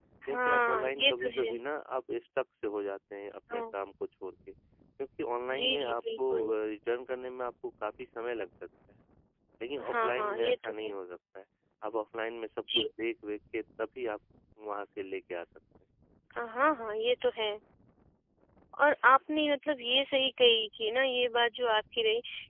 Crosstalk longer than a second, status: present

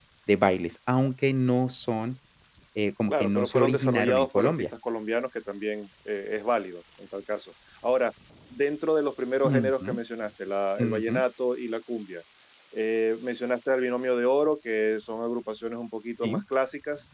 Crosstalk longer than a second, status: present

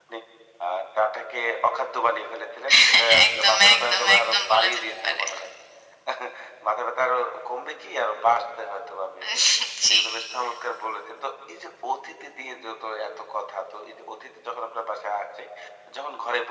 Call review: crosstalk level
present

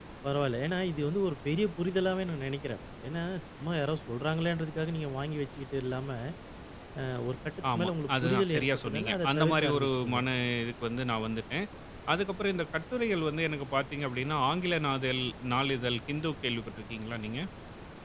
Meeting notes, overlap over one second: present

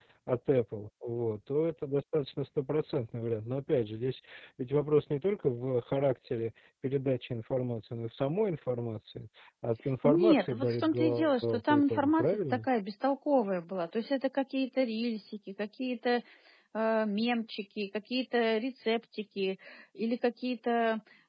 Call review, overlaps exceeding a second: present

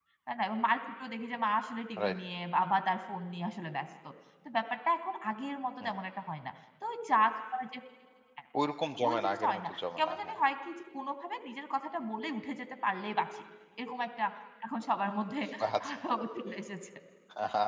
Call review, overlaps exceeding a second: present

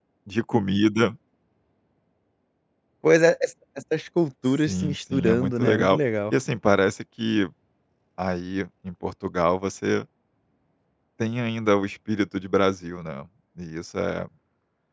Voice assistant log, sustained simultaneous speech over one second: present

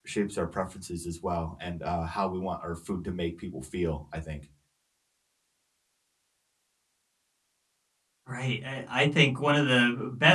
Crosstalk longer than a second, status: none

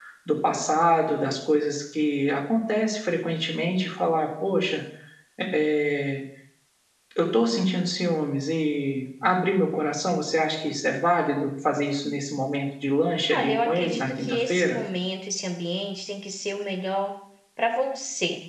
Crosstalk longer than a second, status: present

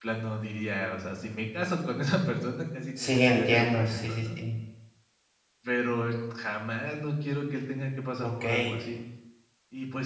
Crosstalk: present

